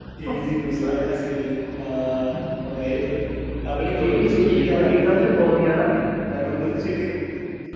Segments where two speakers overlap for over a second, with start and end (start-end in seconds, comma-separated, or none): 4.0-5.2